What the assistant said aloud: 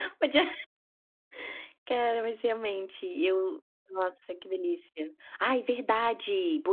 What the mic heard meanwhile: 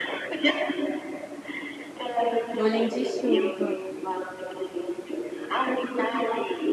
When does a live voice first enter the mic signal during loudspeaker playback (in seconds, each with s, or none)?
2.5 s